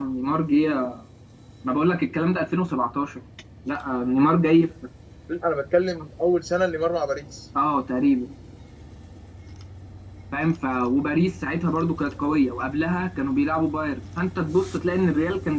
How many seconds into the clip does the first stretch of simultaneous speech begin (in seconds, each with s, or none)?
none